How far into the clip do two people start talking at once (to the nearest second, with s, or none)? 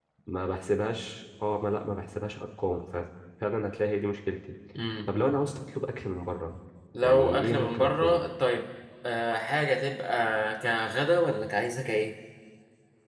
7 s